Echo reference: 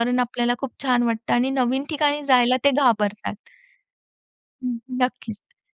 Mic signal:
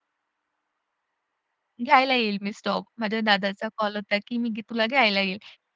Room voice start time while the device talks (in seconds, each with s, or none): 1.8 s